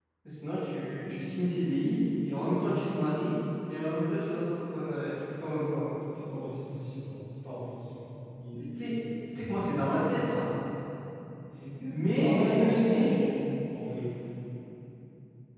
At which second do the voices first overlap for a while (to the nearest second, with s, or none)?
12 s